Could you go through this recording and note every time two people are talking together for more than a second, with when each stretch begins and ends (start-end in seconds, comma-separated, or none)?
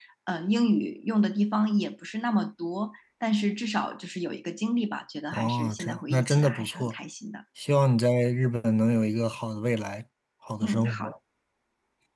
5.3-6.9